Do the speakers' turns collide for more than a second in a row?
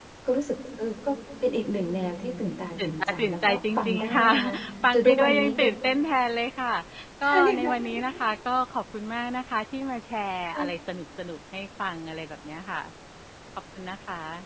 Yes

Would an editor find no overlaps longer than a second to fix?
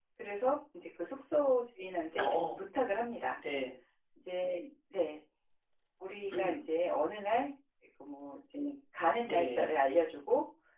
Yes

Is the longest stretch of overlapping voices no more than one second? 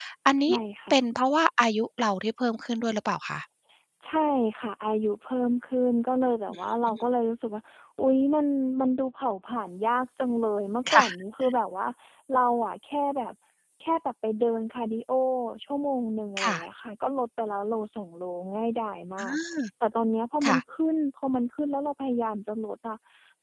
Yes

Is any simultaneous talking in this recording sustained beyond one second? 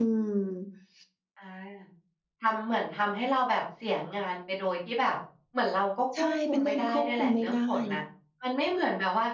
Yes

